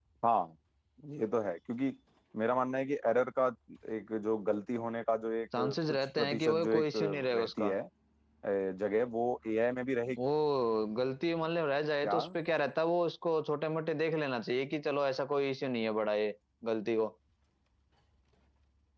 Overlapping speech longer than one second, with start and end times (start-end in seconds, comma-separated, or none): 5.6-7.8